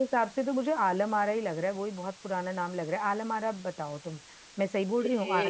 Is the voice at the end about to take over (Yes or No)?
Yes